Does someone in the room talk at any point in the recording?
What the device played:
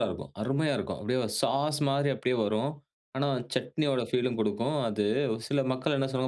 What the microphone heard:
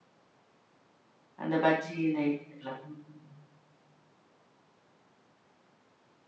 Yes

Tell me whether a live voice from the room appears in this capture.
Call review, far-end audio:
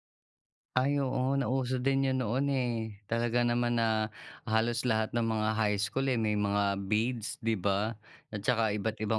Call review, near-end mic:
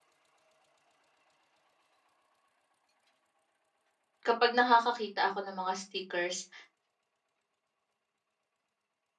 Yes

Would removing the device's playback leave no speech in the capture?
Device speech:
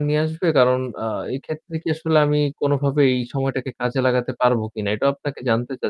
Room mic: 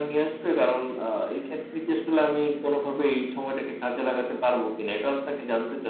Yes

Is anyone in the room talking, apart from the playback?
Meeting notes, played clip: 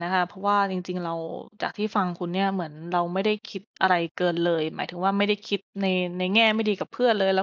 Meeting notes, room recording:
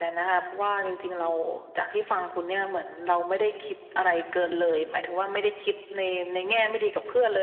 No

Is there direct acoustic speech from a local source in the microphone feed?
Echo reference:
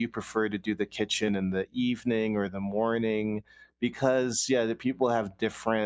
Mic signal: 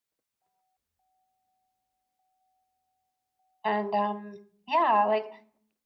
Yes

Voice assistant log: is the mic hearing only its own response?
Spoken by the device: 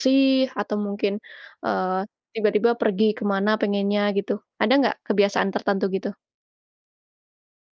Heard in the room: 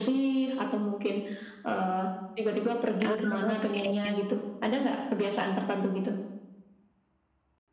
No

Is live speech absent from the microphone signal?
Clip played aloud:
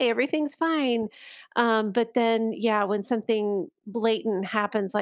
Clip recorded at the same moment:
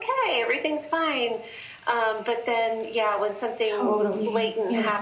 No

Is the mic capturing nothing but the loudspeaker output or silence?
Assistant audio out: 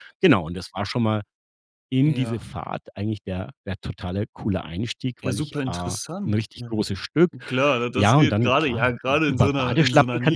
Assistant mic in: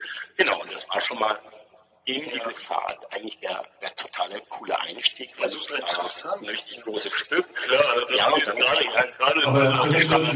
No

